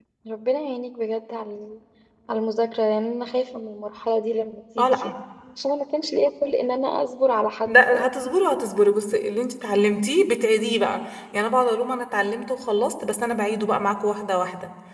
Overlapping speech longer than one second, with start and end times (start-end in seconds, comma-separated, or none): none